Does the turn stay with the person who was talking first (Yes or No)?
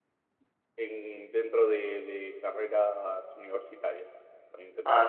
No